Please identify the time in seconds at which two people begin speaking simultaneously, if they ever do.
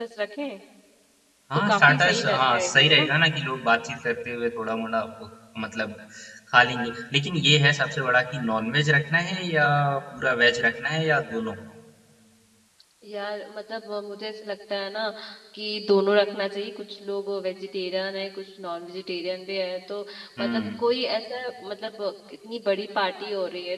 1.7 s

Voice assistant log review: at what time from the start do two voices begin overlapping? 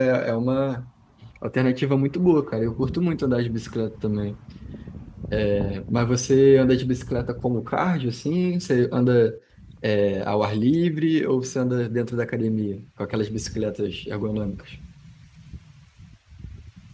none

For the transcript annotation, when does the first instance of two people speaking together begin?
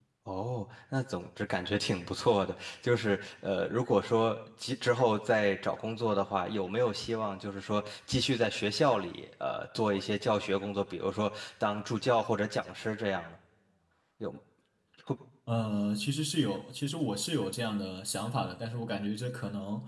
none

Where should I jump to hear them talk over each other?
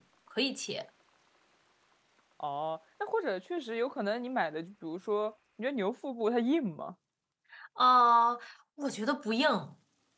none

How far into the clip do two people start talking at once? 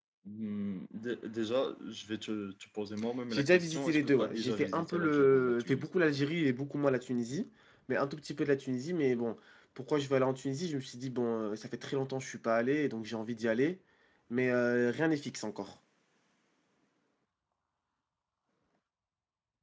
3.3 s

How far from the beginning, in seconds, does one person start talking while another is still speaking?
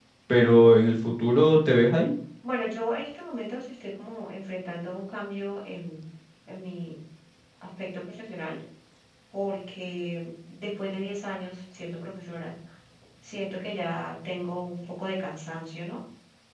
none

